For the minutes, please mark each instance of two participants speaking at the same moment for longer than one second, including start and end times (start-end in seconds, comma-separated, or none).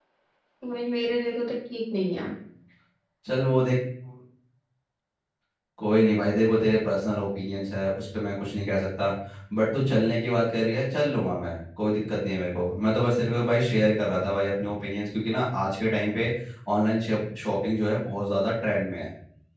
none